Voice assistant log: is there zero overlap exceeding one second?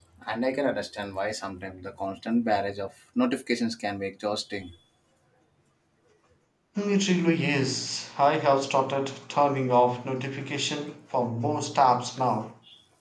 Yes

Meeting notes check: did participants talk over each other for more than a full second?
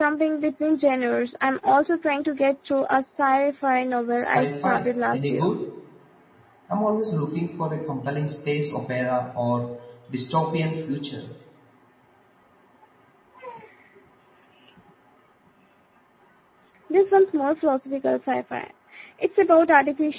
Yes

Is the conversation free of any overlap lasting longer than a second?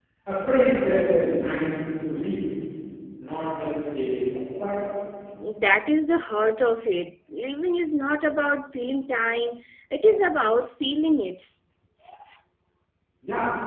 Yes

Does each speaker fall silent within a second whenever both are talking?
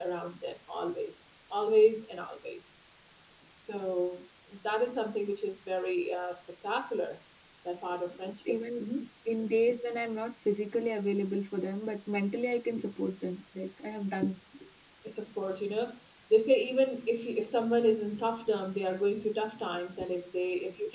Yes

